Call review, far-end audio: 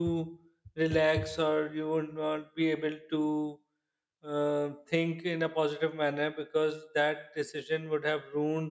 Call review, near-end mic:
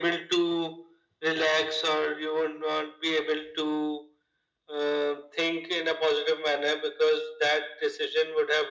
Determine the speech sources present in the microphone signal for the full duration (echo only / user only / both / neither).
echo only